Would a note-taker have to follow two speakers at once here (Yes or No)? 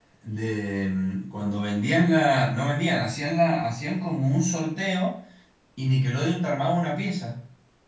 No